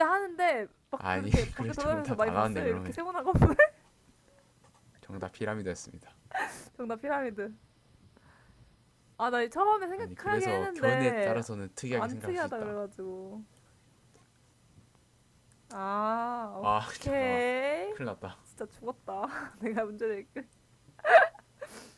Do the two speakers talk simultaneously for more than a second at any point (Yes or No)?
Yes